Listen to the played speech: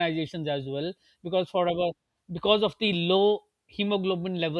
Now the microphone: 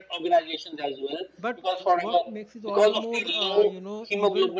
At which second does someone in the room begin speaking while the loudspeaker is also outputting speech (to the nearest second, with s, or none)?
1 s